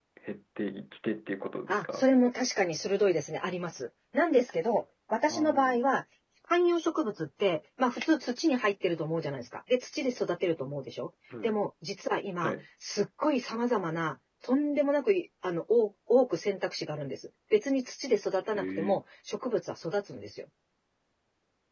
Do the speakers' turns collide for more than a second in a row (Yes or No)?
No